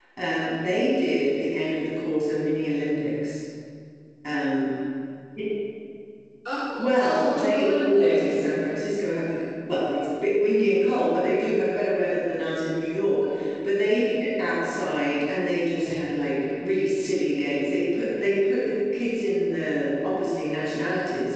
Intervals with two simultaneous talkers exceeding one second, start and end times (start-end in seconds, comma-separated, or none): 6.9-8.4